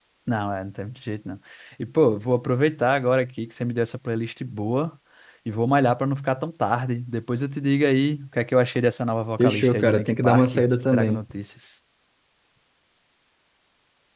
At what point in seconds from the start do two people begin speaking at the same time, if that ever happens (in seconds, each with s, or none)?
9.4 s